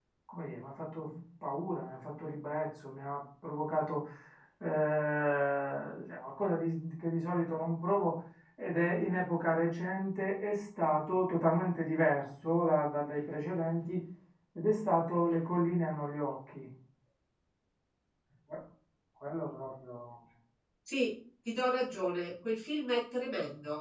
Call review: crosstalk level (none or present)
none